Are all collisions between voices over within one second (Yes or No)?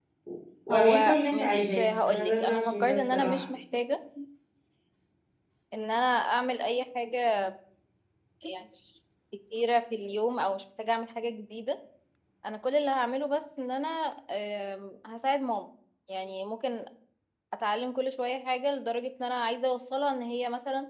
No